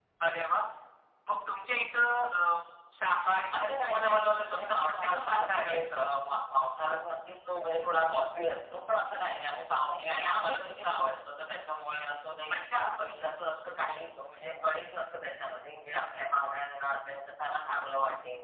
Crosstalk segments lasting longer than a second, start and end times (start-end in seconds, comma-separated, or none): 3.6-5.8